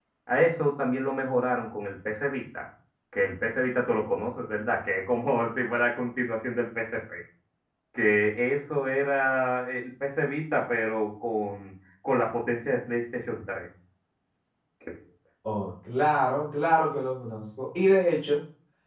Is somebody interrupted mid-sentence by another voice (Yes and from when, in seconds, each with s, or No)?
No